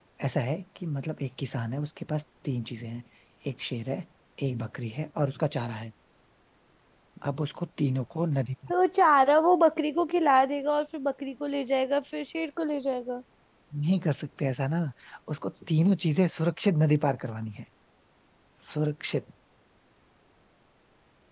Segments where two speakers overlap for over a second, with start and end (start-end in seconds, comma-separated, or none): none